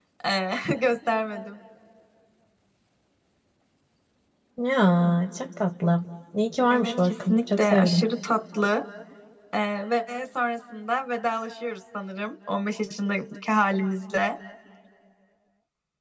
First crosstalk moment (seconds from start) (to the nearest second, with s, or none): 7 s